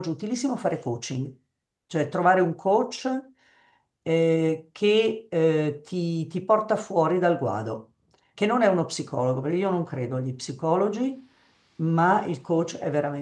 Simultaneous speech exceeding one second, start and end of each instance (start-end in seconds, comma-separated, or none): none